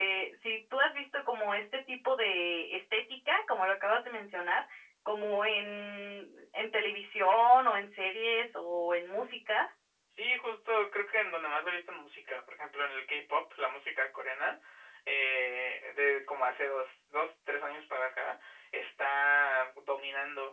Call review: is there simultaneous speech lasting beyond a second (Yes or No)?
No